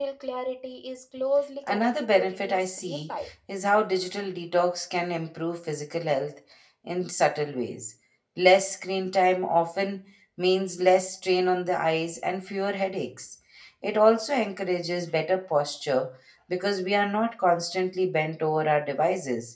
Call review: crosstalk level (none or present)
present